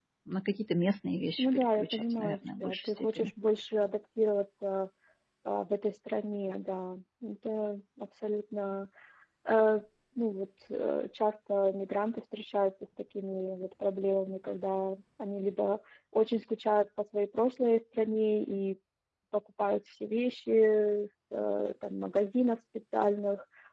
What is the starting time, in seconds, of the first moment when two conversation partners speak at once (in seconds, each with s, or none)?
1.4 s